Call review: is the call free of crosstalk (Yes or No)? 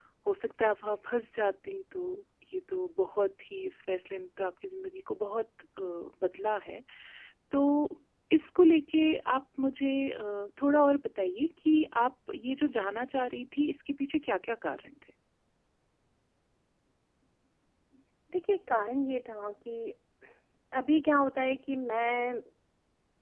Yes